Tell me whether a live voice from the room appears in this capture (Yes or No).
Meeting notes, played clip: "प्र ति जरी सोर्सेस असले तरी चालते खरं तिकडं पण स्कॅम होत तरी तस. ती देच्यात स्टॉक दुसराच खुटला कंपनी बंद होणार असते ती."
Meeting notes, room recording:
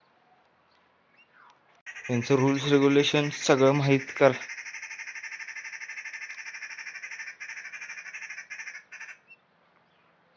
Yes